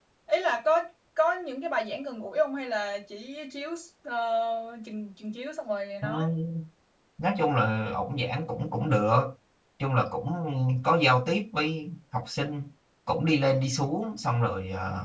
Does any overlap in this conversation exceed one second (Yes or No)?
No